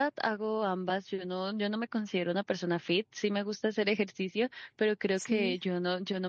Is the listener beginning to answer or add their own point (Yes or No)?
No